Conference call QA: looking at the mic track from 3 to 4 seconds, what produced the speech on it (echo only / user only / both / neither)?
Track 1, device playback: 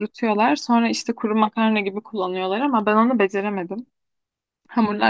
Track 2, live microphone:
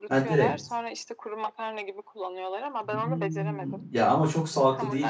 both